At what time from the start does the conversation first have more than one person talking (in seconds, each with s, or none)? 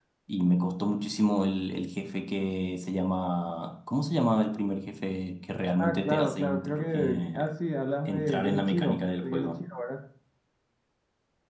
5.8 s